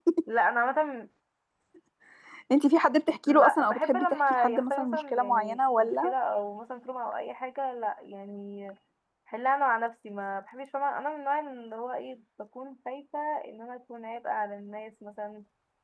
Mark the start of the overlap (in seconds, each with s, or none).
3.3 s